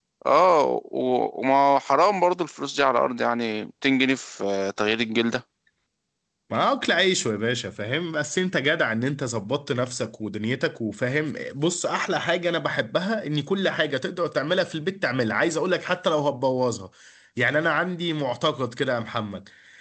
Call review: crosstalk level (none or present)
none